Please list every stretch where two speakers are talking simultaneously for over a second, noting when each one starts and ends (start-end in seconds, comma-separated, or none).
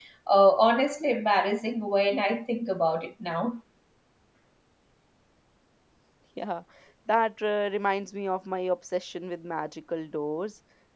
none